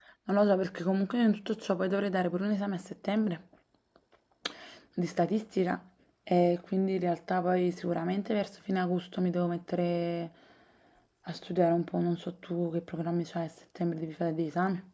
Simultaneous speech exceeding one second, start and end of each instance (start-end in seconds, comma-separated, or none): none